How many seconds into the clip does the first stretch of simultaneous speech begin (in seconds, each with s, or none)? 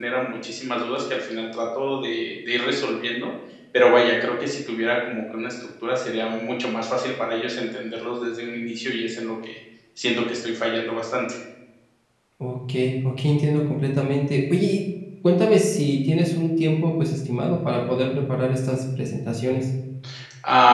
none